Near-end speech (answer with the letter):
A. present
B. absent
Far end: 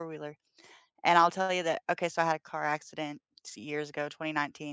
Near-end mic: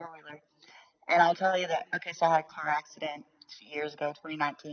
B